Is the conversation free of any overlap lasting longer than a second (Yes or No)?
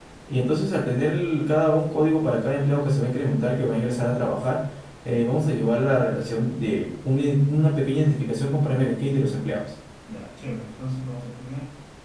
Yes